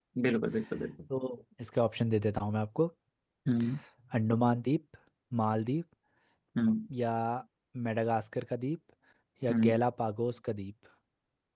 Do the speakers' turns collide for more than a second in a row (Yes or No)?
No